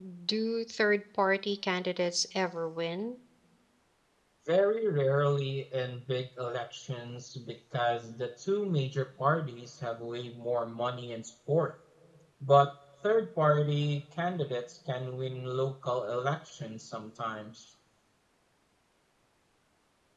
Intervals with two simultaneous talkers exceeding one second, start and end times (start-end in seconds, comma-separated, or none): none